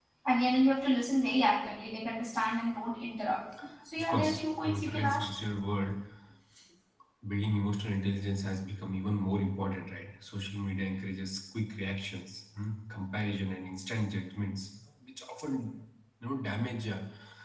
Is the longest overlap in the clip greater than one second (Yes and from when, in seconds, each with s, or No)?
Yes, from 4.0 s